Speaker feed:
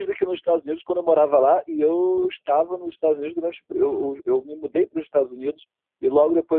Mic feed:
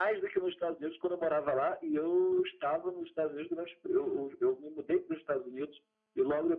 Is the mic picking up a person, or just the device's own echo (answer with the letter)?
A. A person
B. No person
B